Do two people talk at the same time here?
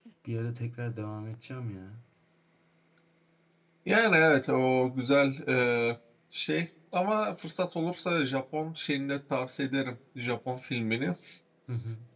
No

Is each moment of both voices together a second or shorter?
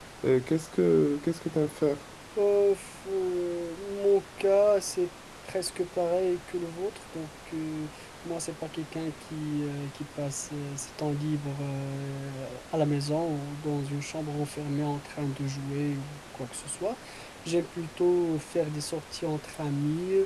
Yes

